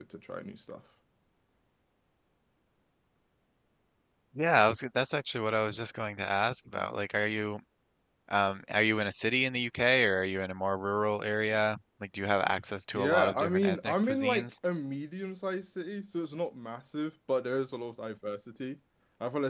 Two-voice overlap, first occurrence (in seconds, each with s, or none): 12.9 s